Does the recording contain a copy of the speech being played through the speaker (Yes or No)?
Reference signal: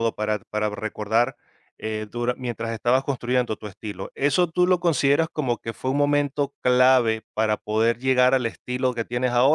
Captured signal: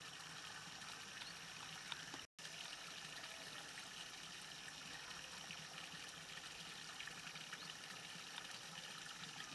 No